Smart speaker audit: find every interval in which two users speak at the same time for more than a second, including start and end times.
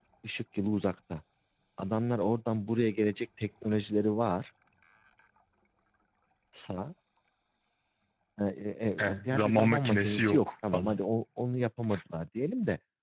9.3-11.0

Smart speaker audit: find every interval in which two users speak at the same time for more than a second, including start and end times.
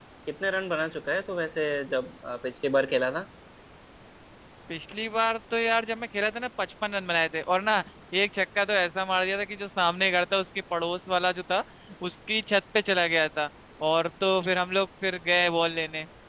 none

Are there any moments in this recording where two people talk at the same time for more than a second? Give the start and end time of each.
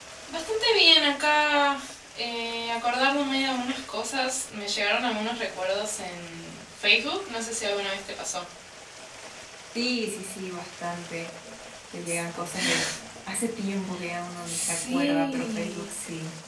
14.4-15.9

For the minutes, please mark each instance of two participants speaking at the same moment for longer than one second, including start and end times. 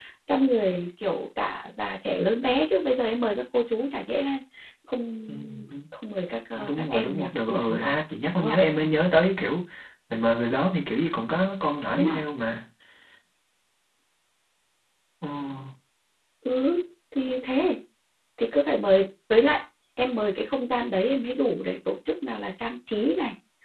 6.5-8.0

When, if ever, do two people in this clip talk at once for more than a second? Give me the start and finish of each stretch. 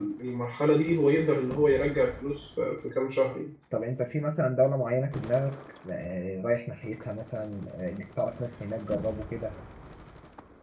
none

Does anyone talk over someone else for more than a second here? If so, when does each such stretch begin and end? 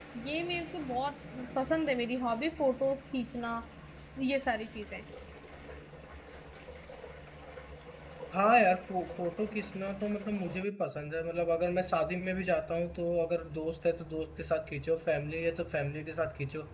none

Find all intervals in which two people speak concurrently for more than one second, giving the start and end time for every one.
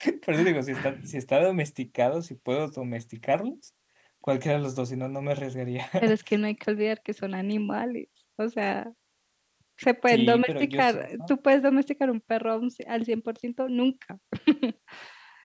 10.1-11.3

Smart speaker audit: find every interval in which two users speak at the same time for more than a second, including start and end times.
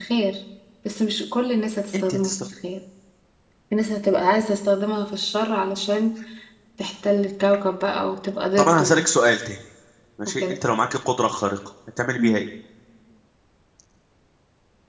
none

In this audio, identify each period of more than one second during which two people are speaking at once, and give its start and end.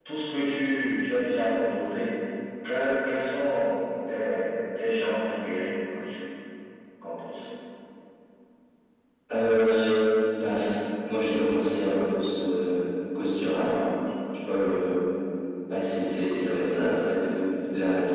none

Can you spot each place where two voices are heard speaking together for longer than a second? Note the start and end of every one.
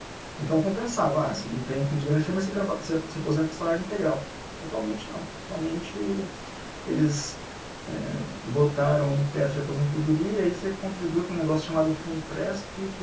none

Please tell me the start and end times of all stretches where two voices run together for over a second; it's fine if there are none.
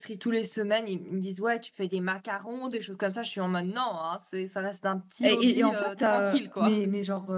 5.2-6.8

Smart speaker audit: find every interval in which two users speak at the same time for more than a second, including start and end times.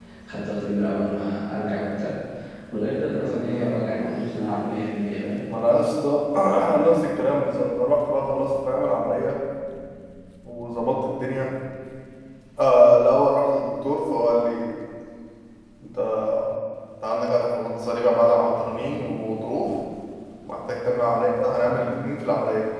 3.2-4.7

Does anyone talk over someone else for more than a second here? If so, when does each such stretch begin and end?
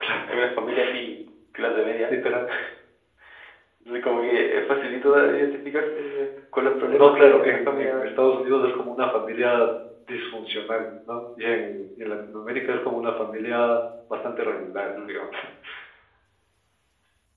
6.8-8.2

